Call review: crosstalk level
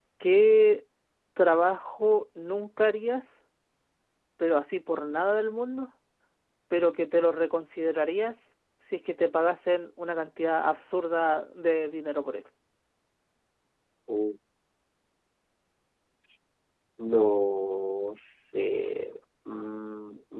none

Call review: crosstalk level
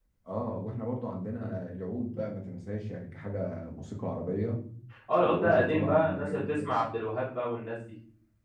present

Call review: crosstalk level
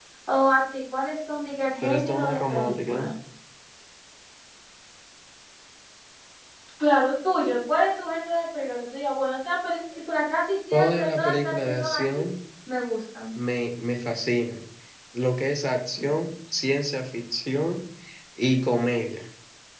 present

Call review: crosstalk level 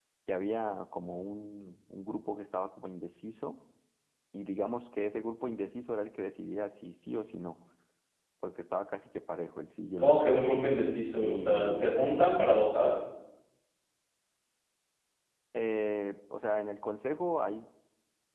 present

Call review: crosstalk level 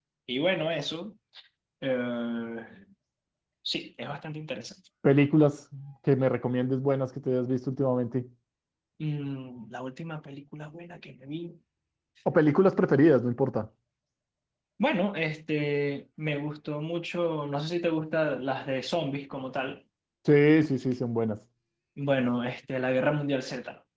none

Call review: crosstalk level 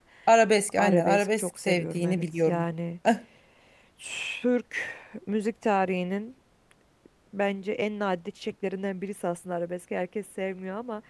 present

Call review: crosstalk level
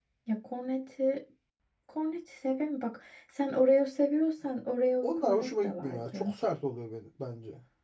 present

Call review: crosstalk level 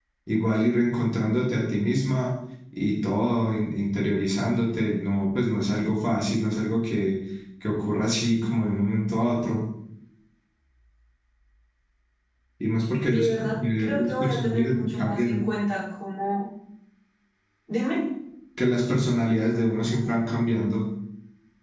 present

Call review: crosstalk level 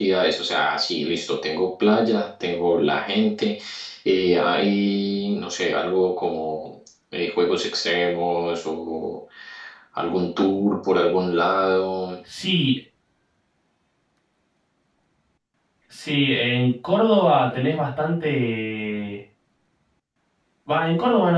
none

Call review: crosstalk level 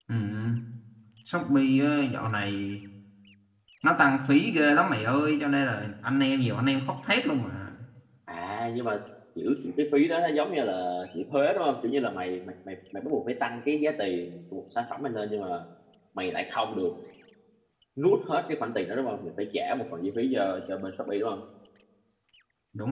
none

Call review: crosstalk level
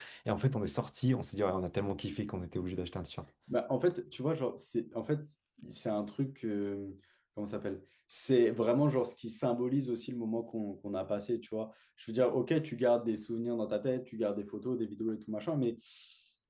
none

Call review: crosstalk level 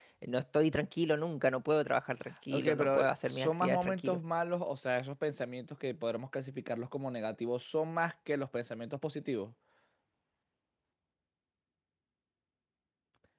present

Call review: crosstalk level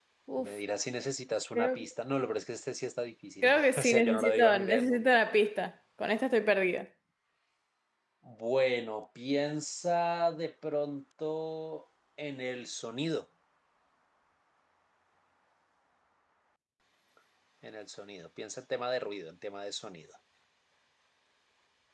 present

